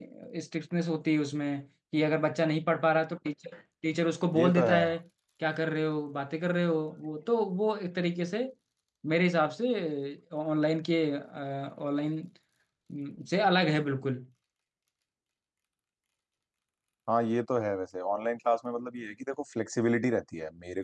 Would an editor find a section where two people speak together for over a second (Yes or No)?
No